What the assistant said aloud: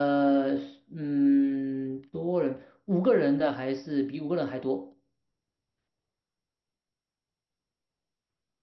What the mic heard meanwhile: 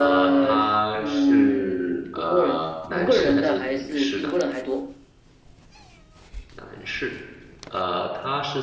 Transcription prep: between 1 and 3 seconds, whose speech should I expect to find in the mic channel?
both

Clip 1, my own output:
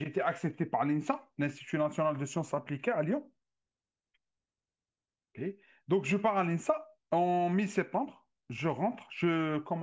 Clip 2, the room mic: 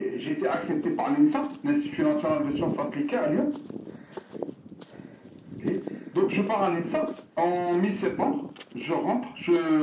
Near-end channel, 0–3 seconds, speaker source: echo only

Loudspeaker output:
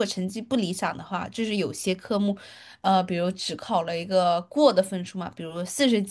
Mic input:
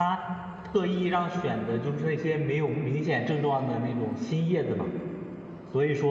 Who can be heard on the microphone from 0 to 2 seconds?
user only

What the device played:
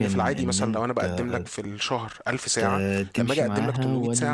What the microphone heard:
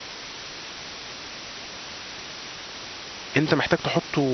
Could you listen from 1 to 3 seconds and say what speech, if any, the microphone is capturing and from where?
neither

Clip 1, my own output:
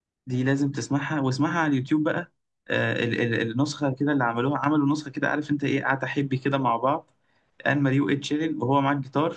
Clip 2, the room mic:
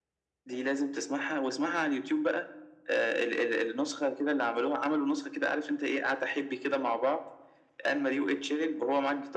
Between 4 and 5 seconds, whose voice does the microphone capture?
echo only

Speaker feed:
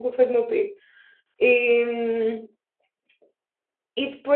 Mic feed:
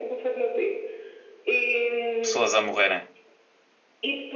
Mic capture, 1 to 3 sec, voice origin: both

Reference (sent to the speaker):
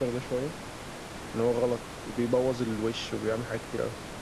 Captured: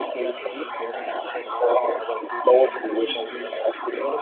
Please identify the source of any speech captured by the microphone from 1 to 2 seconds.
both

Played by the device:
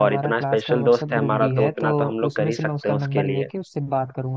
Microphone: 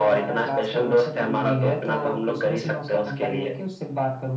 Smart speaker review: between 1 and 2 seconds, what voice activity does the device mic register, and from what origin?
echo only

